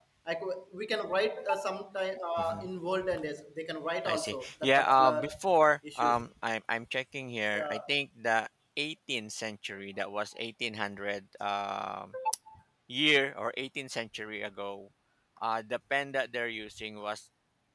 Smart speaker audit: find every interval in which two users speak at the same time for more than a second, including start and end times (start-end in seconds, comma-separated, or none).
4.0-5.3